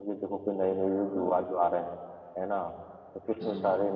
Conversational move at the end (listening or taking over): listening